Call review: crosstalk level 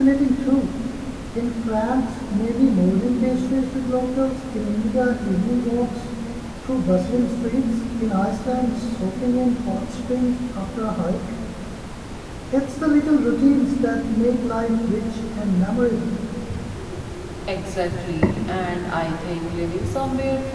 none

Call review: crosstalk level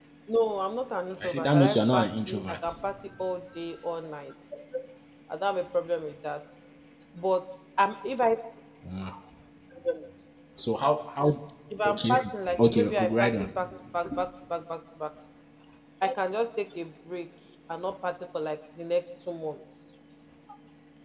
present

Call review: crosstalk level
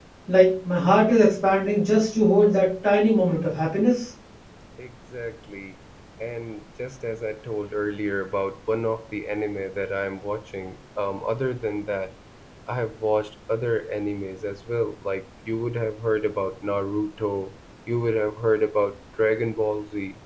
none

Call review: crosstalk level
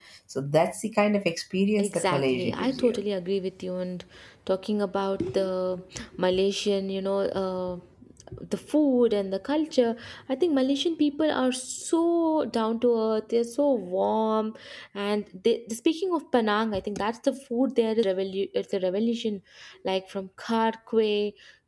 present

